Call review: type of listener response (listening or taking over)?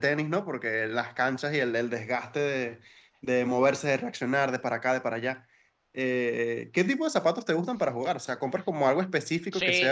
taking over